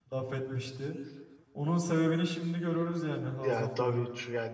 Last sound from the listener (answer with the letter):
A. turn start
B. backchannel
A